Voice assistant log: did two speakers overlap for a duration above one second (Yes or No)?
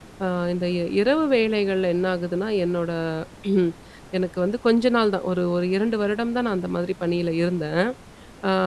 No